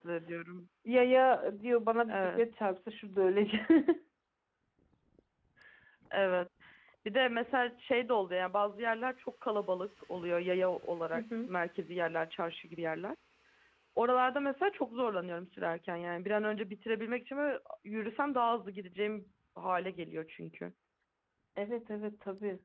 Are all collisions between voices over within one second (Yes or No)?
Yes